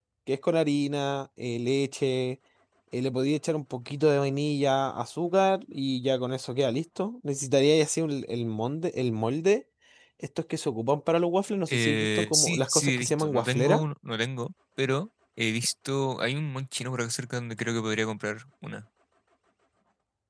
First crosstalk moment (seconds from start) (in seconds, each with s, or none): 11.7 s